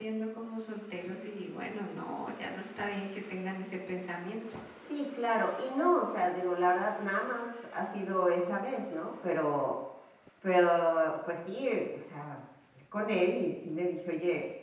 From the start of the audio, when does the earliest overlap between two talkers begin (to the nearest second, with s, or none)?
none